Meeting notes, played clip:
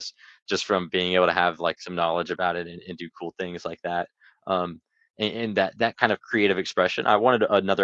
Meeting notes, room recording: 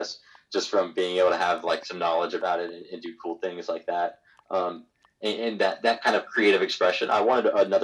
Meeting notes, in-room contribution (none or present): none